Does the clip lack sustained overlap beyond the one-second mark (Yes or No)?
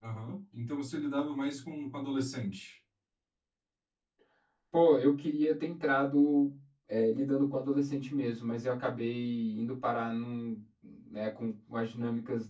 Yes